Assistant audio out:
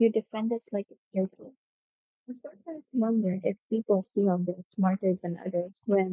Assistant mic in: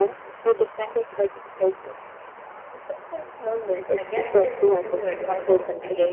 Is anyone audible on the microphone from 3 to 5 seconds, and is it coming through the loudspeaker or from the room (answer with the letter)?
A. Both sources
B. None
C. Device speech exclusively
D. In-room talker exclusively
A